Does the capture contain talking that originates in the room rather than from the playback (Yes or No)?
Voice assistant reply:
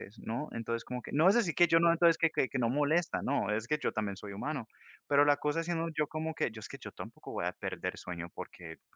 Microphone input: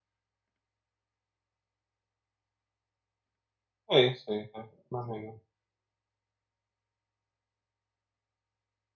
Yes